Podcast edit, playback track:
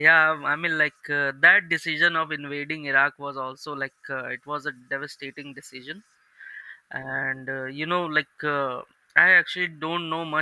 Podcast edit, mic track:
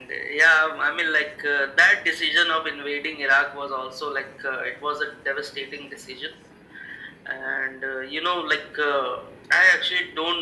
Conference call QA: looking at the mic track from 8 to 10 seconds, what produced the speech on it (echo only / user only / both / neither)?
echo only